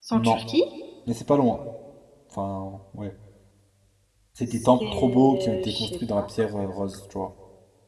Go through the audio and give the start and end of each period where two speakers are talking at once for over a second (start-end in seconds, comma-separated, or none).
4.5-6.3